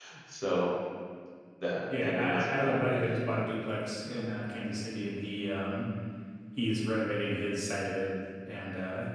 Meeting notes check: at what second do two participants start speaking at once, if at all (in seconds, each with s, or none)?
2.0 s